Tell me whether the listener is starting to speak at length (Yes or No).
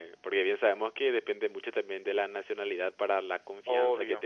No